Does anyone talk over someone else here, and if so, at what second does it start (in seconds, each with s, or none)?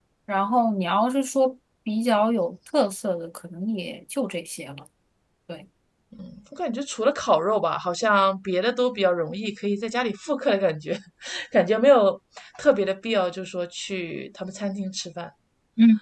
none